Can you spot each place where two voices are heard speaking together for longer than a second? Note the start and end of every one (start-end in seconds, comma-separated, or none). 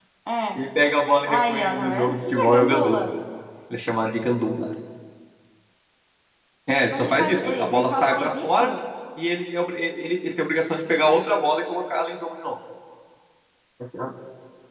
1.2-3.0, 6.9-8.7